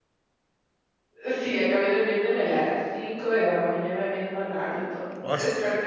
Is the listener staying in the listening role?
Yes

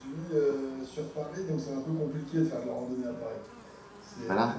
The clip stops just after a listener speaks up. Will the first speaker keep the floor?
No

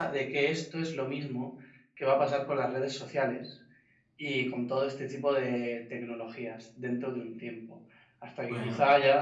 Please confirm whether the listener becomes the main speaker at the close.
No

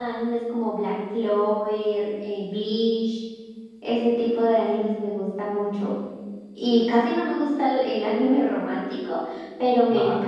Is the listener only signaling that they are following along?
Yes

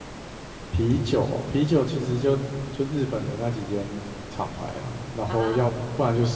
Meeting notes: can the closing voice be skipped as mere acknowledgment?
Yes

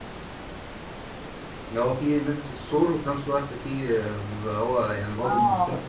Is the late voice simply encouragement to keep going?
No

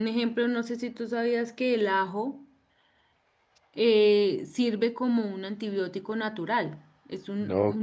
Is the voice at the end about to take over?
Yes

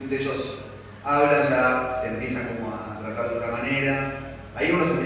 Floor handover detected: No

